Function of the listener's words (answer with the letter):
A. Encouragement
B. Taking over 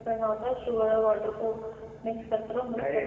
B